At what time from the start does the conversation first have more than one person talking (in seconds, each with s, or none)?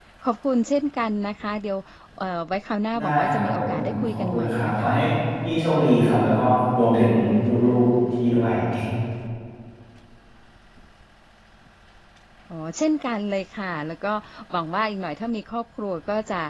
3.0 s